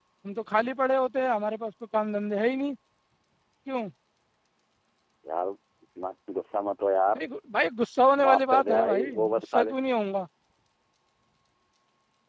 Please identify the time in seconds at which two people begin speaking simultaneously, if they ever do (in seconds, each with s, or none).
8.2 s